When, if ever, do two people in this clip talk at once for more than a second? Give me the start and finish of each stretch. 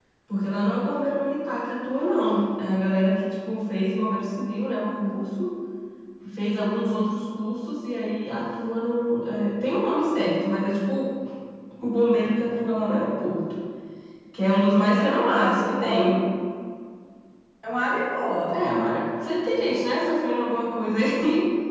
14.9-16.2

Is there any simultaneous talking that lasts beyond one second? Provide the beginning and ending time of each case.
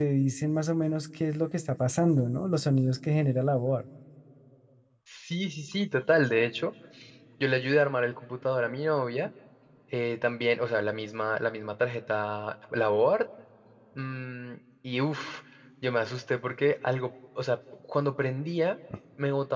none

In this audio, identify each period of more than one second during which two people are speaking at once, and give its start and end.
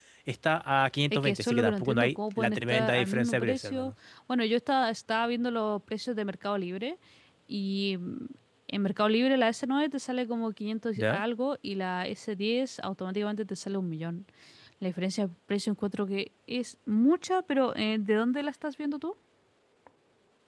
1.1-3.9

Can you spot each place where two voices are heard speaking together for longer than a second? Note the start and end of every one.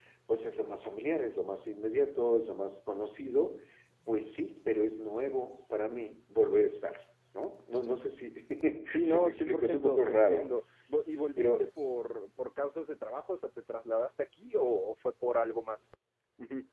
9.0-10.5

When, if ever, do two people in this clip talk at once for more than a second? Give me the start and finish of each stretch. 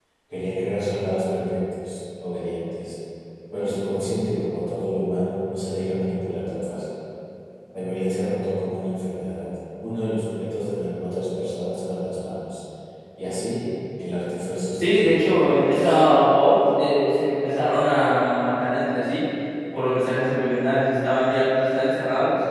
14.8-16.0

